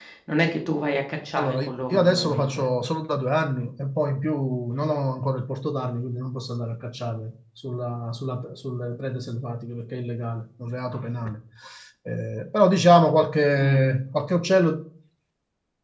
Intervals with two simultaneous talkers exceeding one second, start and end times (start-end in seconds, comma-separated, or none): 1.4-2.6